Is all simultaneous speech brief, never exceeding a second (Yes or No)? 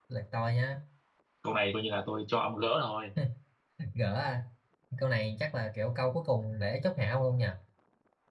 Yes